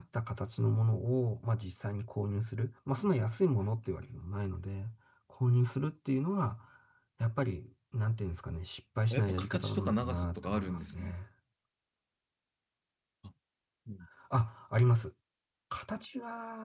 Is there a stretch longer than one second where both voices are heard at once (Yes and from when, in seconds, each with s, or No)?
Yes, from 9.1 s